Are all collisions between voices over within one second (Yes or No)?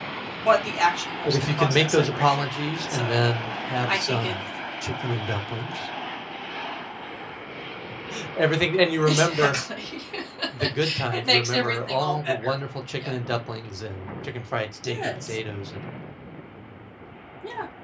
No